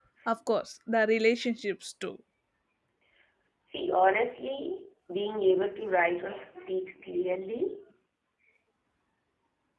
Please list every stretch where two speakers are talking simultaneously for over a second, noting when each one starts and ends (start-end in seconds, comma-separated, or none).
none